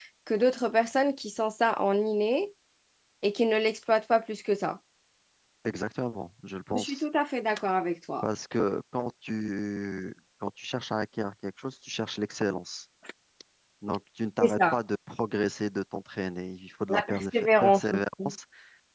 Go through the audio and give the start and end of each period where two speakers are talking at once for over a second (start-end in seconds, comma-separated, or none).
16.9-18.3